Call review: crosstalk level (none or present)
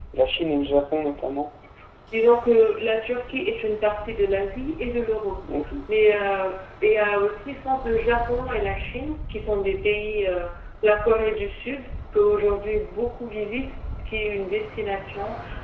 none